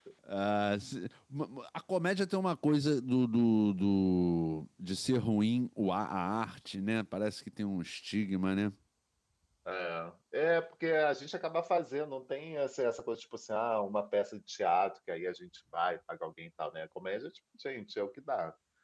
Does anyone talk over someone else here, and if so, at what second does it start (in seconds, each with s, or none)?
none